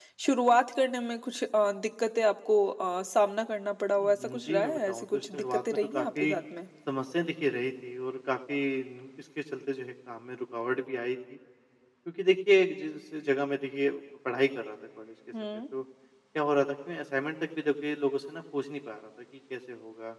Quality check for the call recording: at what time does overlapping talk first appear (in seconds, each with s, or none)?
4.0 s